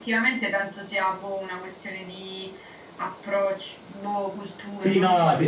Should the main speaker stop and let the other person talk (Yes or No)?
Yes